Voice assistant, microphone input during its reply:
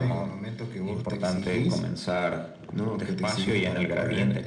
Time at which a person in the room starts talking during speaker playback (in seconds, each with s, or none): none